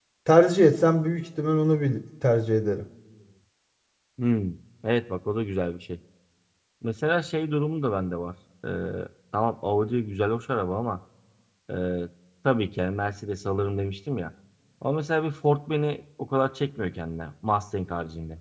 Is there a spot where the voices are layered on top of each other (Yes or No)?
No